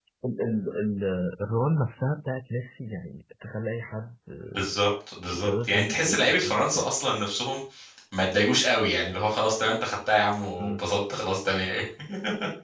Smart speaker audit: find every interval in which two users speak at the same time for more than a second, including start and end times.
5.3-6.9

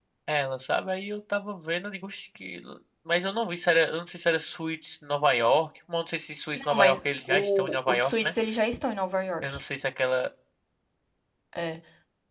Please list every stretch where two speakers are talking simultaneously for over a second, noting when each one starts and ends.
6.5-8.3

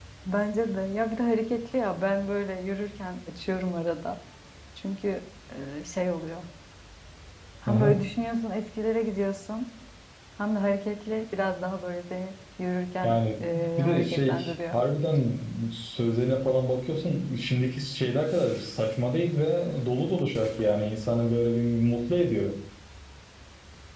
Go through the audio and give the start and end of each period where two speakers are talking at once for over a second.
13.0-14.8

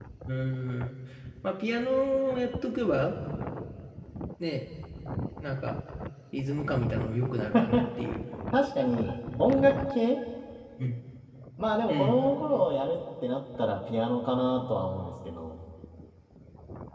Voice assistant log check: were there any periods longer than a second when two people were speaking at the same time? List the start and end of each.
none

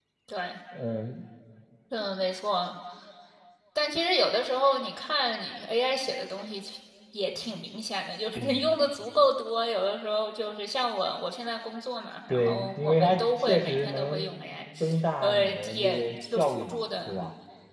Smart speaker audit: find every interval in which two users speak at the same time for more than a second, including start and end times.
12.3-14.3, 15.2-17.2

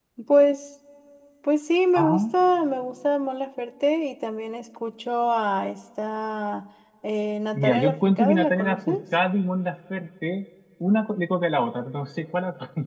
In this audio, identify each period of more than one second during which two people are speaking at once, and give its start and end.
7.5-9.0

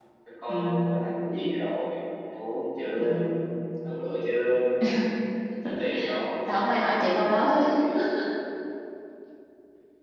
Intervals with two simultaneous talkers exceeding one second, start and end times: none

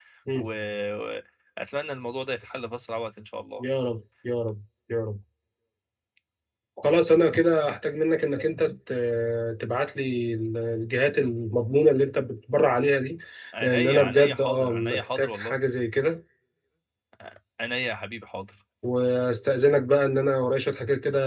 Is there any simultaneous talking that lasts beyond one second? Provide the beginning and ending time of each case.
13.6-15.6

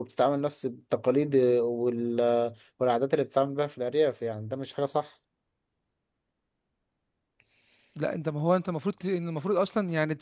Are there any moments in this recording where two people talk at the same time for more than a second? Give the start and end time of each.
none

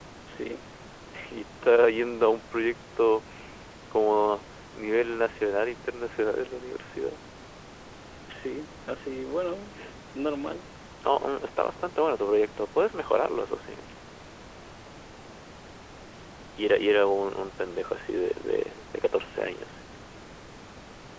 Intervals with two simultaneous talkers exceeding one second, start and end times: none

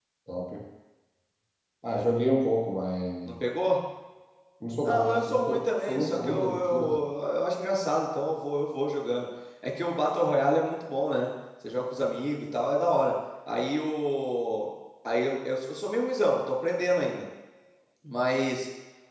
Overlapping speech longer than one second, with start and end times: 4.8-7.0

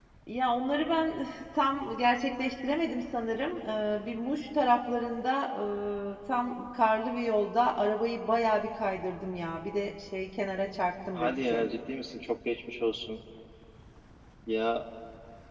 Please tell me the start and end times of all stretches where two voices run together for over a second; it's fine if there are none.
none

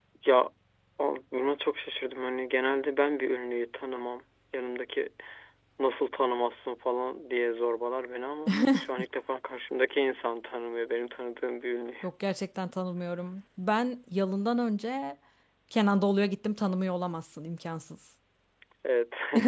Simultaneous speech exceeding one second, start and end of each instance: none

